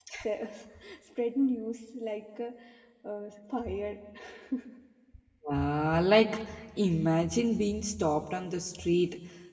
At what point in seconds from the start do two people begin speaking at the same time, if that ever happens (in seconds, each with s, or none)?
none